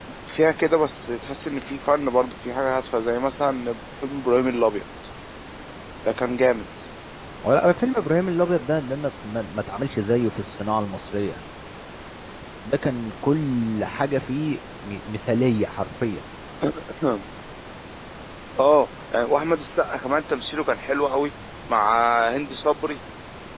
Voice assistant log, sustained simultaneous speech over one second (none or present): none